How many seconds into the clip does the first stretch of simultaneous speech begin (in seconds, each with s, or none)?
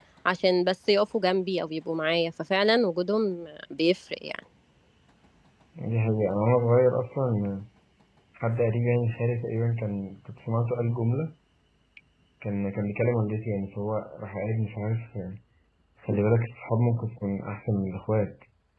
none